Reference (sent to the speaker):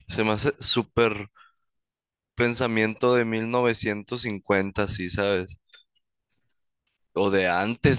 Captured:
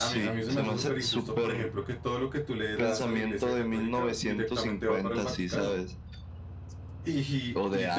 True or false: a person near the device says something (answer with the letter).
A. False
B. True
B